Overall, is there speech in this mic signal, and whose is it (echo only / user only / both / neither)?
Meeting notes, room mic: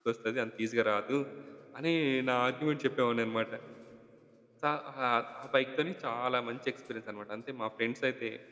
user only